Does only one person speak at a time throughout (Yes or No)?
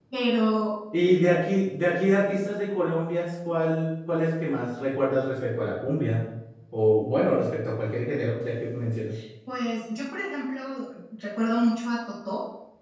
Yes